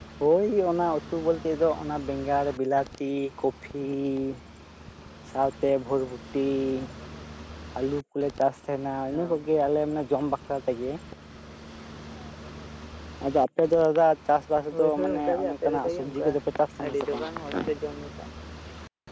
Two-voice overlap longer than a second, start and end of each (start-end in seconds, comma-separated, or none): 14.7-16.3